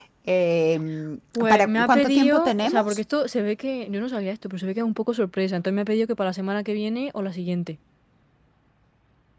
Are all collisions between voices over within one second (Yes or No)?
No